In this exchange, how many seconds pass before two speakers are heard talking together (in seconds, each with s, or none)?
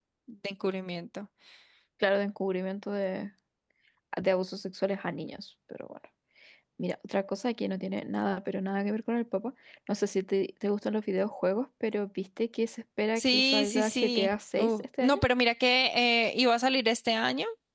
13.2 s